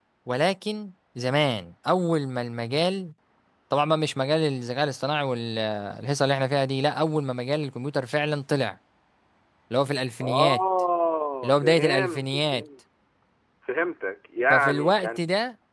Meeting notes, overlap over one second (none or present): present